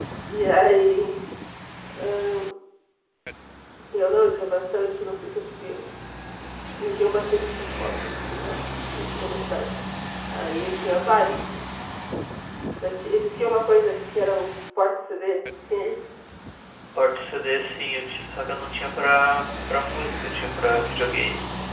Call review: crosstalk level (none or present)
none